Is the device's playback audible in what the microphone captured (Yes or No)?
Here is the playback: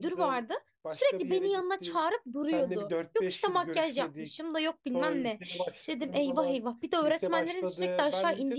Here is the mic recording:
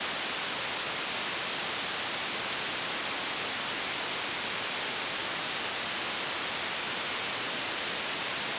No